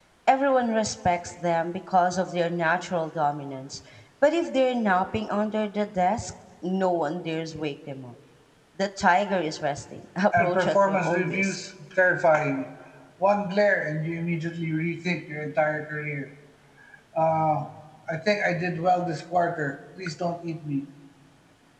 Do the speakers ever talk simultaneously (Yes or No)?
Yes